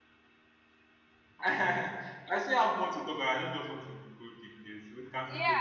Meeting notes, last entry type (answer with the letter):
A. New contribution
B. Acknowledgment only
A